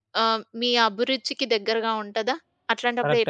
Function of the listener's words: taking over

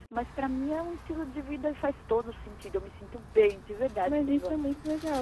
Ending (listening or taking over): taking over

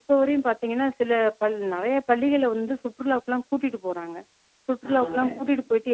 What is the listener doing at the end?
listening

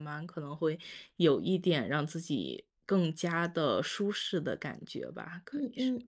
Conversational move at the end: taking over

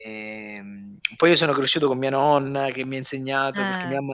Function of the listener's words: listening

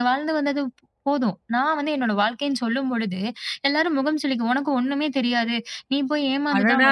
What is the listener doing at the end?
taking over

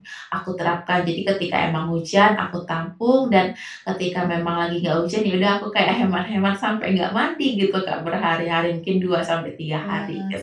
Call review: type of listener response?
taking over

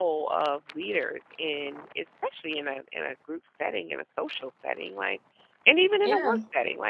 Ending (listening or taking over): listening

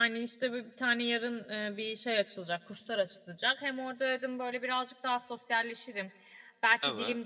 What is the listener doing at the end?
listening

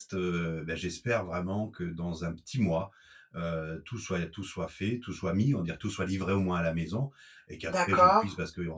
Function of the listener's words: listening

